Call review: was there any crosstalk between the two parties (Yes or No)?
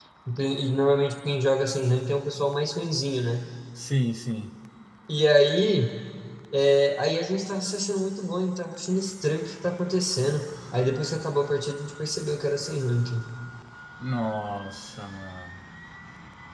No